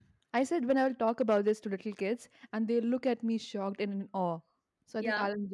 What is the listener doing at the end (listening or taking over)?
listening